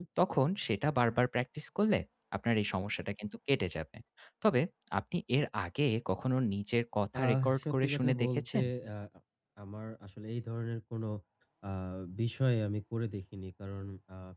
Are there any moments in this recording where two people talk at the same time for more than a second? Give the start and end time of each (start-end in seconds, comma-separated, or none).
7.2-8.6